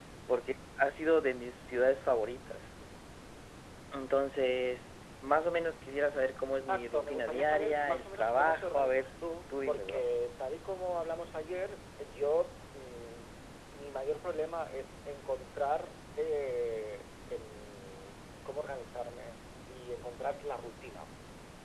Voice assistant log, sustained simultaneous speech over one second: present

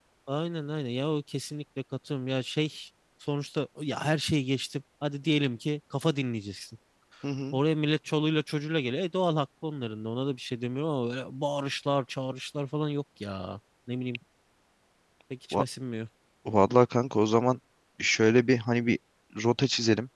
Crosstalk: none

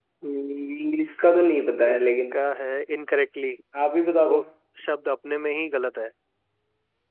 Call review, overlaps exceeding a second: none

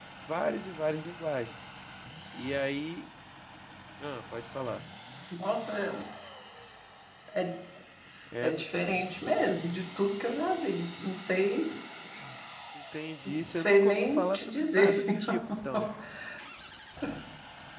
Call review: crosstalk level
present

